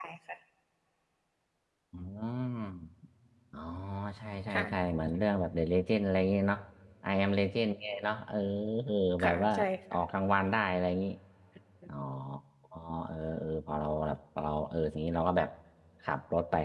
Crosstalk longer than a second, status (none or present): none